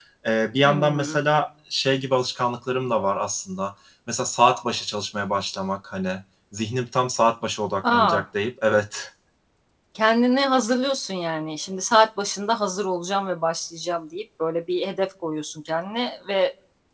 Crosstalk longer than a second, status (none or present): none